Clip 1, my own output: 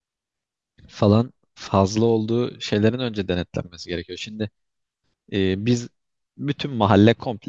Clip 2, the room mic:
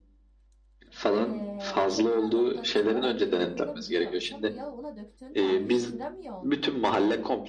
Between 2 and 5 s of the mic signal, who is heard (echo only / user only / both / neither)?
both